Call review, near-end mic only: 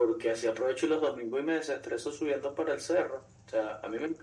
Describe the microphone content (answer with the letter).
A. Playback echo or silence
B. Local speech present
A